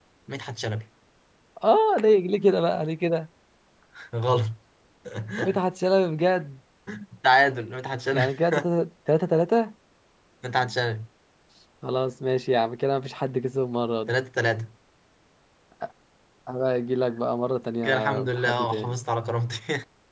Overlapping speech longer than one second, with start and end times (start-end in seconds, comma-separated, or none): 17.8-19.0